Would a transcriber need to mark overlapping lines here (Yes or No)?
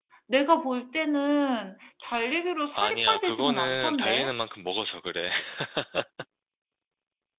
Yes